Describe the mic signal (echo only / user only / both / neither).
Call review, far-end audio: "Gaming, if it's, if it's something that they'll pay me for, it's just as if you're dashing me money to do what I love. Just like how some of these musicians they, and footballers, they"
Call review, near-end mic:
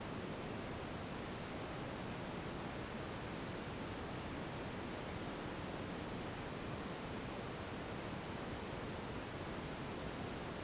neither